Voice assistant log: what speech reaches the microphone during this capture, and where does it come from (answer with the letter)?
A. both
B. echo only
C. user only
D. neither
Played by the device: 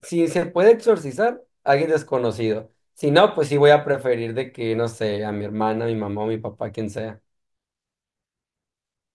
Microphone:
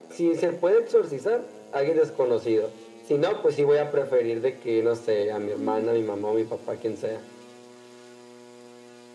A